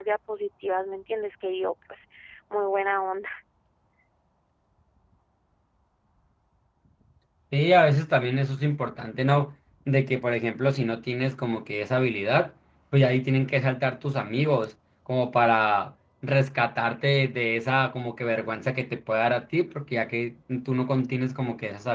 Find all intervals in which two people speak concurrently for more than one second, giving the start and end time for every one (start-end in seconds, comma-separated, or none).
none